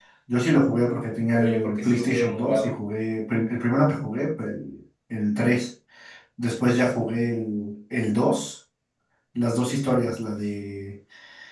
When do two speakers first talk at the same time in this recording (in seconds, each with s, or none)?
1.3 s